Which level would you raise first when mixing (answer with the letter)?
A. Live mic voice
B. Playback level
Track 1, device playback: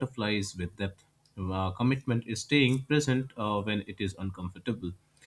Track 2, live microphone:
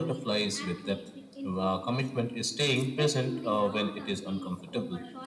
A